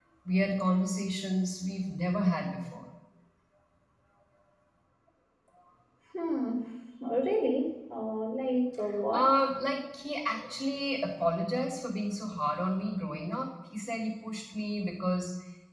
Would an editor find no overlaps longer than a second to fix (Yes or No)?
Yes